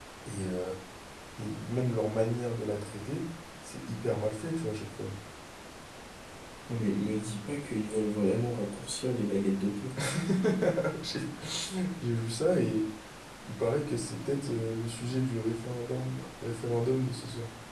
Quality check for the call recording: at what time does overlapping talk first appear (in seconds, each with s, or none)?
none